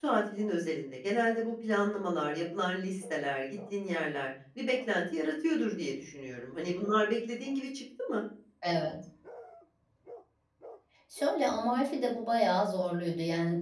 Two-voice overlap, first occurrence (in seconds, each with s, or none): none